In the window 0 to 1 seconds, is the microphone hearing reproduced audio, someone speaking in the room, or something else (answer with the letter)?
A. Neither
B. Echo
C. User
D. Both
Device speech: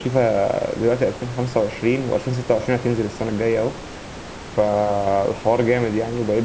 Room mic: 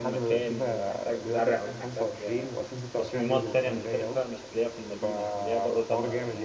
D